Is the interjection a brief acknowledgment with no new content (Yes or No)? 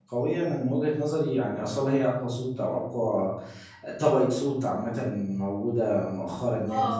No